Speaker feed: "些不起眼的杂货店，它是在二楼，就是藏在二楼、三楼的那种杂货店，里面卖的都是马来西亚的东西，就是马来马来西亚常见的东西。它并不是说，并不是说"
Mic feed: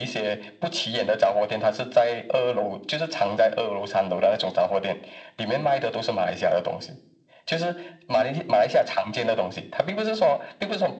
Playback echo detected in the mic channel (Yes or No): Yes